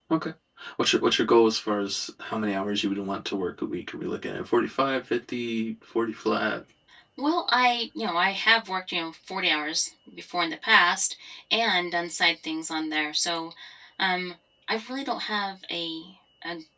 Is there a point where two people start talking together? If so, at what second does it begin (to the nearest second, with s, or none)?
none